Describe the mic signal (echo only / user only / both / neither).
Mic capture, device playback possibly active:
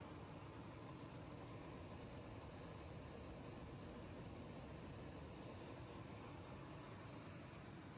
neither